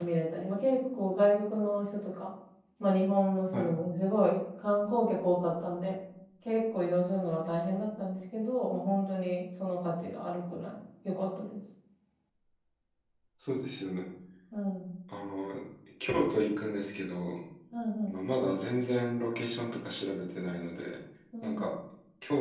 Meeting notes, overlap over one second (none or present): none